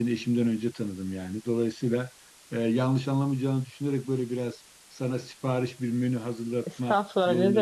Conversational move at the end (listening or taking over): taking over